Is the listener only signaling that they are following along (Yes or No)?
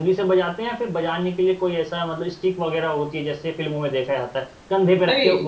Yes